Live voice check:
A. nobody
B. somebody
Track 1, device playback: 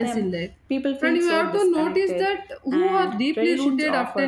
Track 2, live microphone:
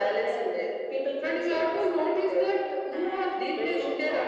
A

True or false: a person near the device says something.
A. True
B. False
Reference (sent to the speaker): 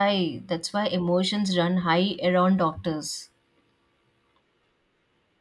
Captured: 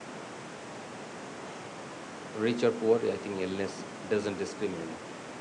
A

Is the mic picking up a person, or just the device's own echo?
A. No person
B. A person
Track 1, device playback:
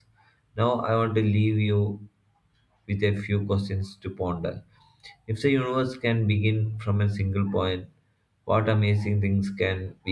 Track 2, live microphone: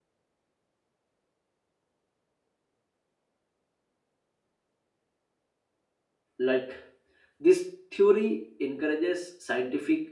B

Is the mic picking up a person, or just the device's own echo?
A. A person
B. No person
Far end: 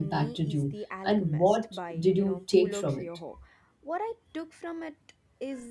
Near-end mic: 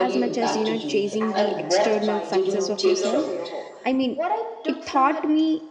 A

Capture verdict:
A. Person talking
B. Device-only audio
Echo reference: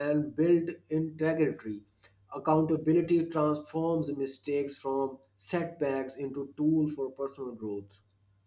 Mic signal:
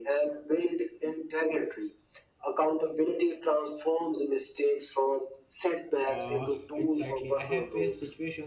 A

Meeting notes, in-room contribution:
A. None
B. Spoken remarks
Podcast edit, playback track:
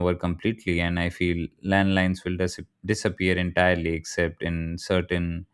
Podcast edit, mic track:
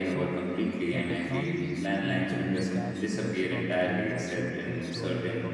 B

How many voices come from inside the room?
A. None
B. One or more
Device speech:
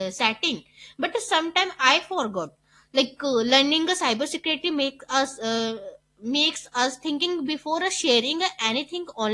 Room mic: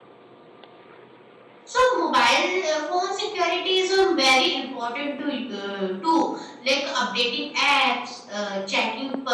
B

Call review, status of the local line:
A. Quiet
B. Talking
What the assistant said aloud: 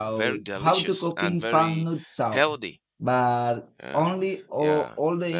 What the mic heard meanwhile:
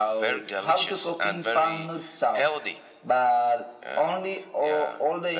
A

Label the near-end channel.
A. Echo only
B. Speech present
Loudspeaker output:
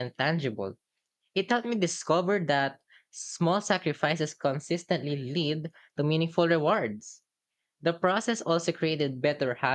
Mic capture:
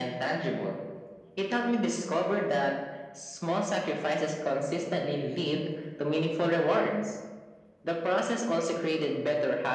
A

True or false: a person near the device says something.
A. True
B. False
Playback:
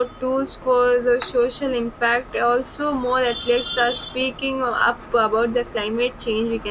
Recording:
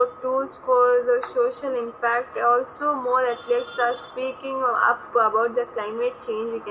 B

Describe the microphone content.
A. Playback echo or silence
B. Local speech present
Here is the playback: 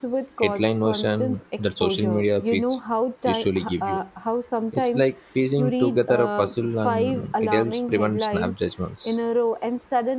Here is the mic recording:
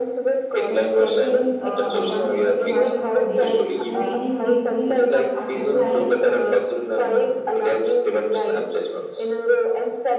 B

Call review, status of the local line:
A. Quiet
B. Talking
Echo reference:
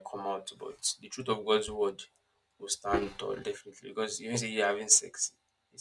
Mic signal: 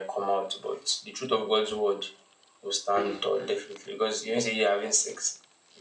A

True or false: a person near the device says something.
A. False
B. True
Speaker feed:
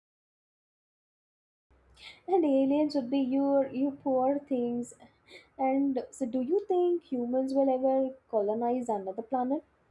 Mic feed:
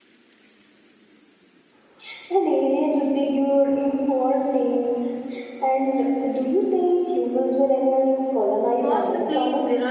B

